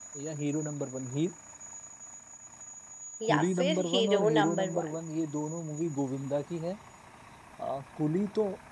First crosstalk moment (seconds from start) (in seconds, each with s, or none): 3.2 s